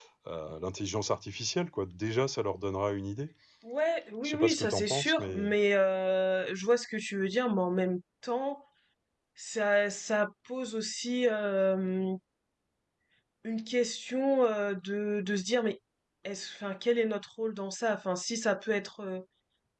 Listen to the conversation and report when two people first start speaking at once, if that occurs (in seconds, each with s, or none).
4.2 s